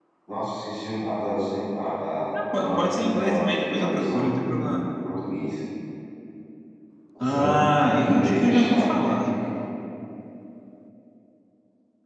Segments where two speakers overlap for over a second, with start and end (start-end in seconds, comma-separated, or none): 2.3-4.7, 8.0-9.3